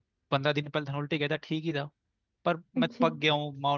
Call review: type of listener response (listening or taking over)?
listening